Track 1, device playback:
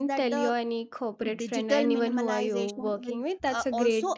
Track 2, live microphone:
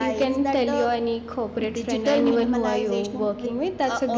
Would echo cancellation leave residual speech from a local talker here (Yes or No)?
No